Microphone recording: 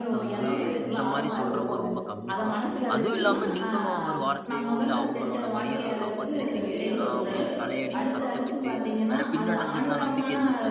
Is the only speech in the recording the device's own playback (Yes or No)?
No